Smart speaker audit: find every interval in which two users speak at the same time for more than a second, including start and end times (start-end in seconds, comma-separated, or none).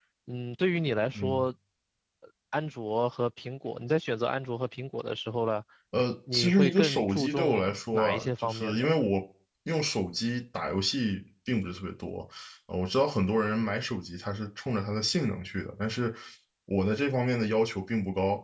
6.3-8.9